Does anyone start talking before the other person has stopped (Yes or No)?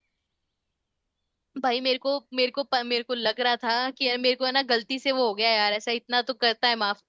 No